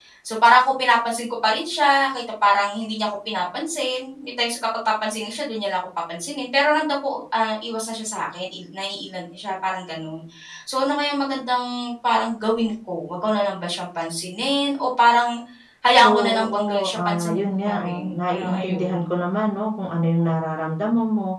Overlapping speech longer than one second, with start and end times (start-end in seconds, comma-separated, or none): 15.9-19.0